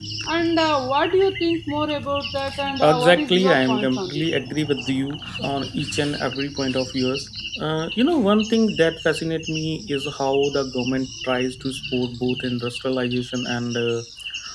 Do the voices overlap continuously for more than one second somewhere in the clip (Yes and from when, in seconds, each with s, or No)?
Yes, from 2.9 s